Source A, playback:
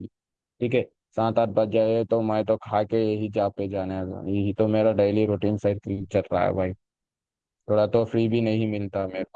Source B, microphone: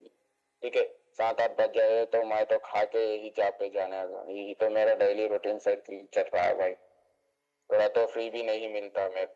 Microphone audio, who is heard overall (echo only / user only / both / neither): echo only